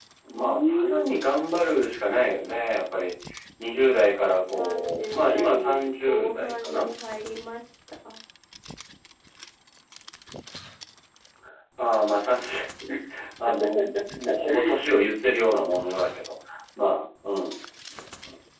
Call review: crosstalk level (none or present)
present